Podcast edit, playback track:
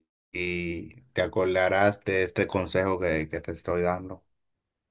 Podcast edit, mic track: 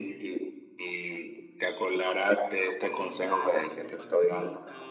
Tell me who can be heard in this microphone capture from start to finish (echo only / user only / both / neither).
both